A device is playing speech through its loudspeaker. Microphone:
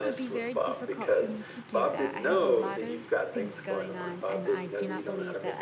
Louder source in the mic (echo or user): echo